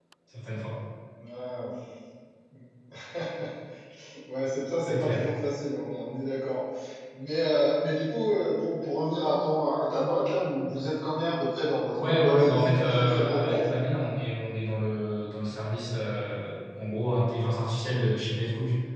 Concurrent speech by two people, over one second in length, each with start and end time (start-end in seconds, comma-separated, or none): 12.0-13.7